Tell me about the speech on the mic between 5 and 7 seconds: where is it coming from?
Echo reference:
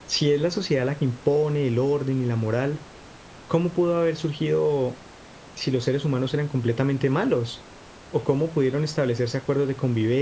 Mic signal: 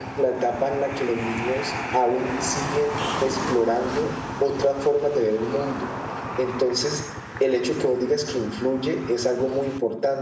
user only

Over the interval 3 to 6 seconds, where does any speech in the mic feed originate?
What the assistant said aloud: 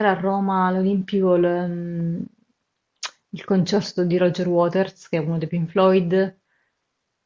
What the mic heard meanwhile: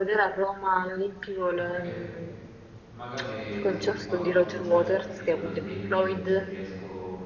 both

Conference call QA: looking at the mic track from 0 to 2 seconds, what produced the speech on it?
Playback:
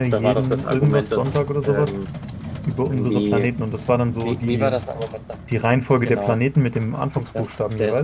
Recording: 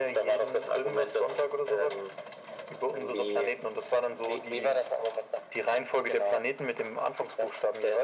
echo only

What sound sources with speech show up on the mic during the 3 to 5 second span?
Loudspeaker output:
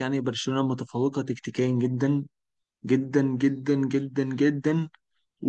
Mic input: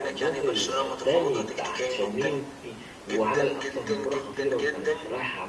both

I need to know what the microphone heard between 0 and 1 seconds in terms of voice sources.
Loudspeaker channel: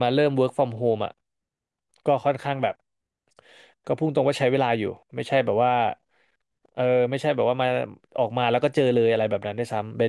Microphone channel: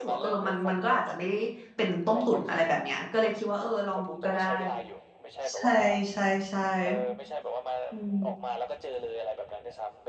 both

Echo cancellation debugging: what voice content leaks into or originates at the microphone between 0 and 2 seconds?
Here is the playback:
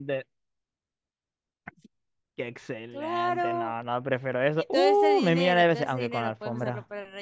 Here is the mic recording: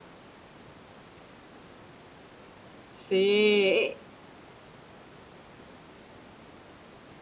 neither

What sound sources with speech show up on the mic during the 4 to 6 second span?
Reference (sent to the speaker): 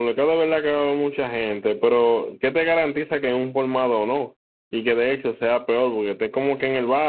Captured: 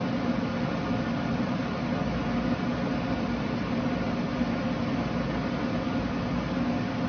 neither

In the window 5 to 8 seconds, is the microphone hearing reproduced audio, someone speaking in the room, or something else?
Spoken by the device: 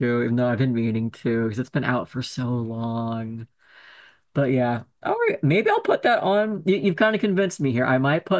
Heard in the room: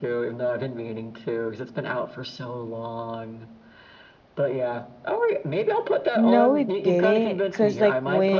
both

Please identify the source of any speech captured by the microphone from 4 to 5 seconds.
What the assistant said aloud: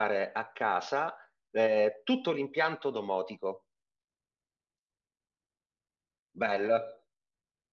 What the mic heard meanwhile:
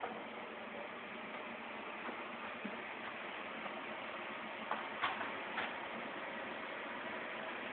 neither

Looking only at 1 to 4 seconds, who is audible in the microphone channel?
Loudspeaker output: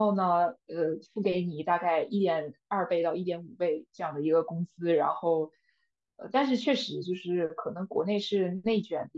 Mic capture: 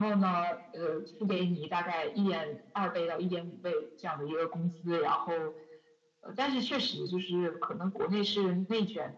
echo only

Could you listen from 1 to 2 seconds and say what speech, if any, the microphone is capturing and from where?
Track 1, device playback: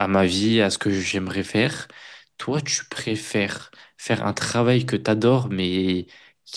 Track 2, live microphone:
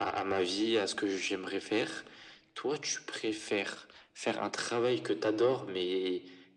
echo only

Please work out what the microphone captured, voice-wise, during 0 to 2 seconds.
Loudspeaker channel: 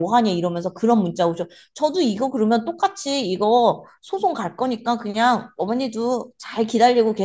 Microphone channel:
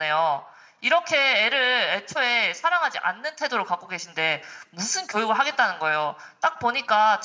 user only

